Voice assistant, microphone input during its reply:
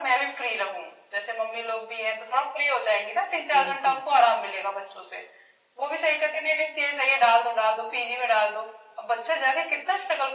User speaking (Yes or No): Yes